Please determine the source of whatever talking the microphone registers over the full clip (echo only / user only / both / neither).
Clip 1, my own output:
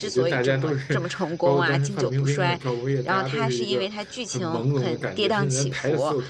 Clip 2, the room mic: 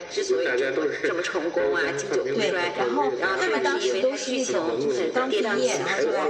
both